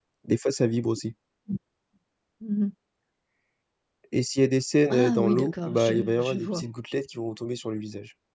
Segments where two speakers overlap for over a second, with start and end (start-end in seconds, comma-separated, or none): 4.9-6.6